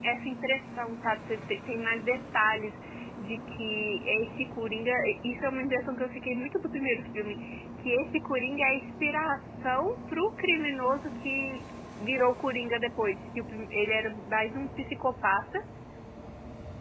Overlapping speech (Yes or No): No